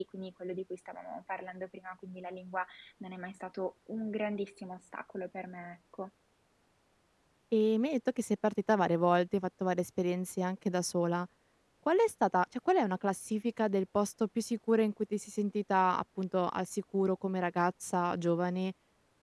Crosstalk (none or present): none